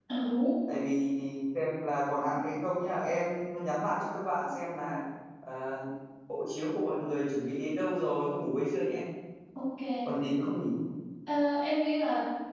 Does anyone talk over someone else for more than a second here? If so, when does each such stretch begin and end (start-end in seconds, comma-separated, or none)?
none